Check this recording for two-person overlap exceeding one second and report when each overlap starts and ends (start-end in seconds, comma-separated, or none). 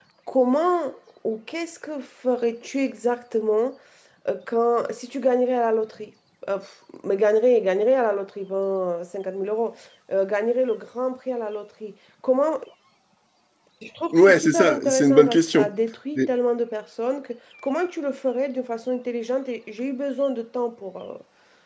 14.1-15.7